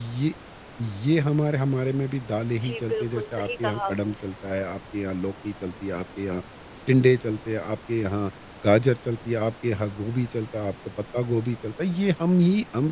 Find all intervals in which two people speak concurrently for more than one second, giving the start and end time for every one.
2.5-4.2

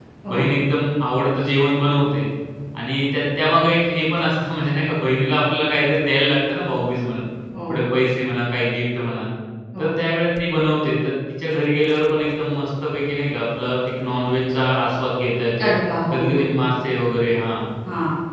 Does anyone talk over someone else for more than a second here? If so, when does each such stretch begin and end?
none

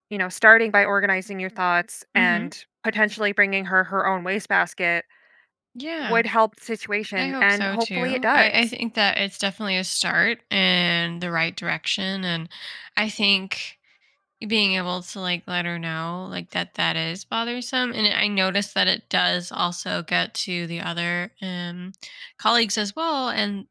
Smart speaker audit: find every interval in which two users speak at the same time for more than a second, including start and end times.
7.2-8.6

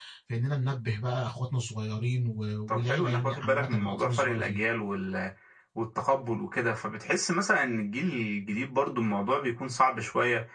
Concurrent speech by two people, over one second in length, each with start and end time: 2.7-4.6

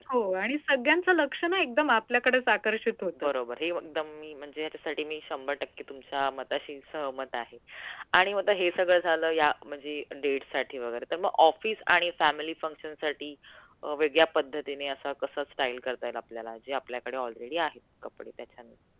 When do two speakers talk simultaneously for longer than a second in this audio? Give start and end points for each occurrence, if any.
none

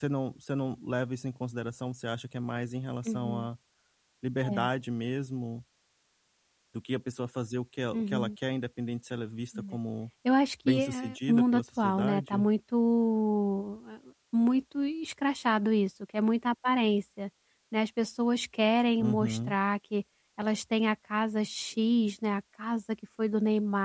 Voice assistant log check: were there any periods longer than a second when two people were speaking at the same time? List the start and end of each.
10.7-12.4

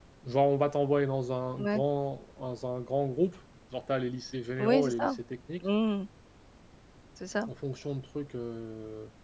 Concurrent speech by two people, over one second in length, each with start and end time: none

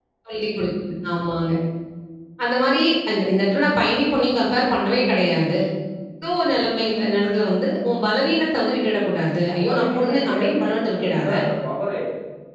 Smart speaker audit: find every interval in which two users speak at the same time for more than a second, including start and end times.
9.6-11.3

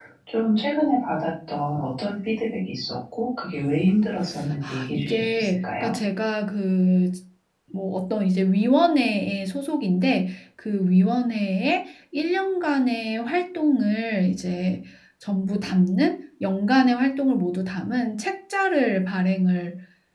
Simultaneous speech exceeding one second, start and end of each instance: 4.6-6.0

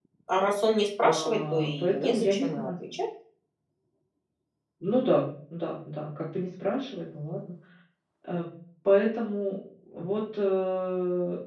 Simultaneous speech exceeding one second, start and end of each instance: 1.0-2.7

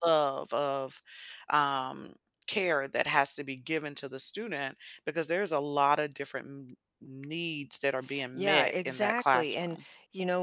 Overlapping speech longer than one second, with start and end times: 8.3-9.8

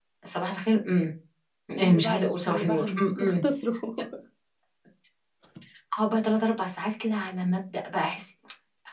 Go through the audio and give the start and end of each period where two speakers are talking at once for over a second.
1.8-3.3

